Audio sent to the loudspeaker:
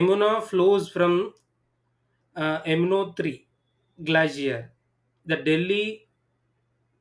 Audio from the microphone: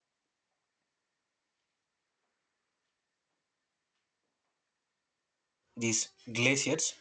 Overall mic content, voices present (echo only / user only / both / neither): user only